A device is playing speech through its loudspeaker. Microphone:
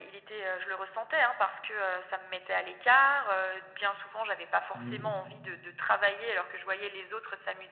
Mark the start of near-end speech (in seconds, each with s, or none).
4.7 s